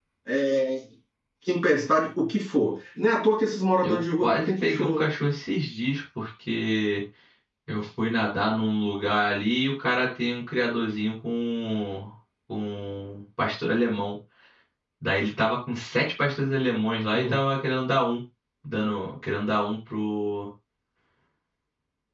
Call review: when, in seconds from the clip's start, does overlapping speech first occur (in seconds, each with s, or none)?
3.8 s